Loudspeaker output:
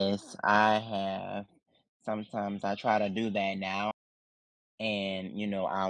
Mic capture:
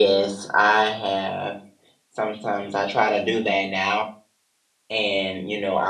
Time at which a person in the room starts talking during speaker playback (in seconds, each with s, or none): none